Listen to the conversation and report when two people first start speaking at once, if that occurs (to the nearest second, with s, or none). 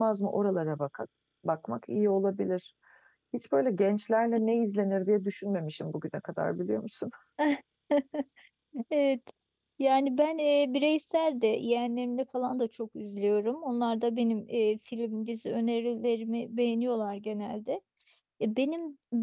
none